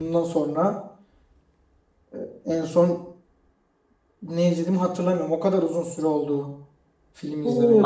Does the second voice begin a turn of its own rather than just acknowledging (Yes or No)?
Yes